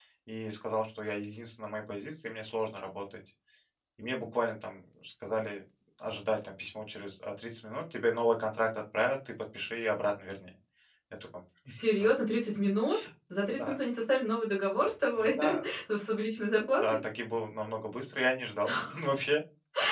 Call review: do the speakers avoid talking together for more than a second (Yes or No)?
Yes